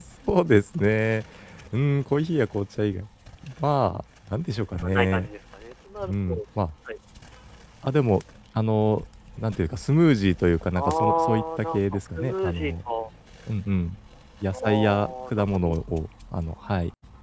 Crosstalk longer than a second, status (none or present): present